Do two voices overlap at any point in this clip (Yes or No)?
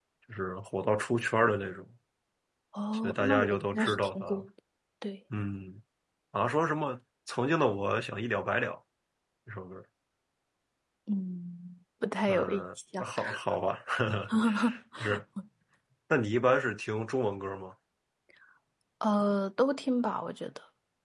Yes